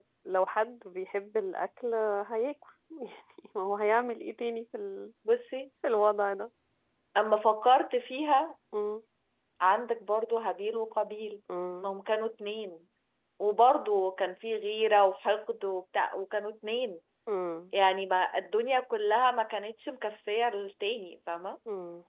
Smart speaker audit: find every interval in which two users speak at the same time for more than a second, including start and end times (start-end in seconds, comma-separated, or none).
none